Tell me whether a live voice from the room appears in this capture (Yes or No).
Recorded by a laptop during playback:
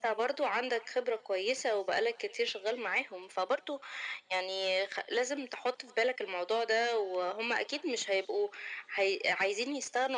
No